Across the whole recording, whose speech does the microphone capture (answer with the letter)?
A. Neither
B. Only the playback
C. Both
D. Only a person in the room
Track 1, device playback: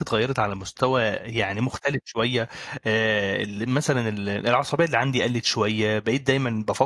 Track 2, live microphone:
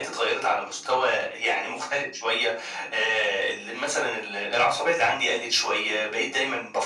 B